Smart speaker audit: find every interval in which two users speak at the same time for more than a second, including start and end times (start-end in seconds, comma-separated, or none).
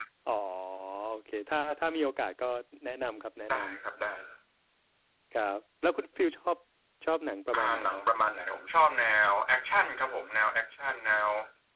none